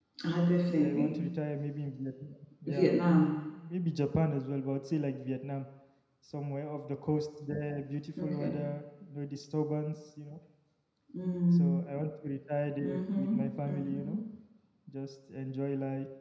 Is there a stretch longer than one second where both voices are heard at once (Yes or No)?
Yes